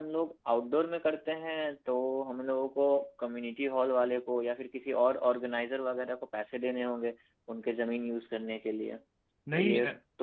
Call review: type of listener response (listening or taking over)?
taking over